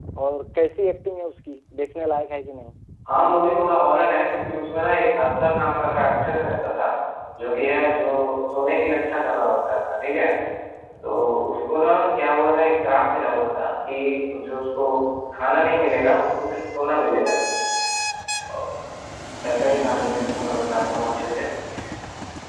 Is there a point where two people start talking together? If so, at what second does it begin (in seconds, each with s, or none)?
none